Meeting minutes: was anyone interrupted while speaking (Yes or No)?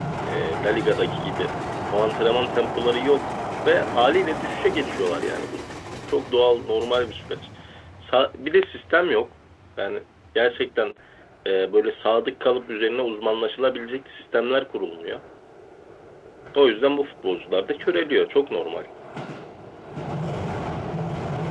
No